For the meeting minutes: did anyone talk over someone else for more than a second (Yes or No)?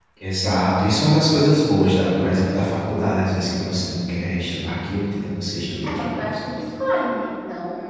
No